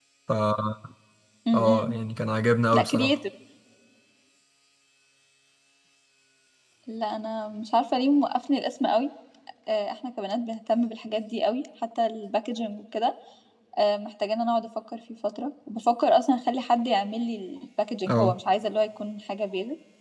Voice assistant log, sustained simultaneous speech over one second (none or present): none